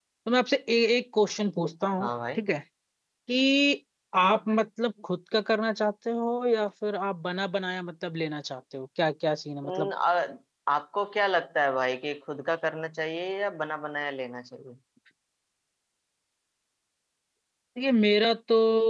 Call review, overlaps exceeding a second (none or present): none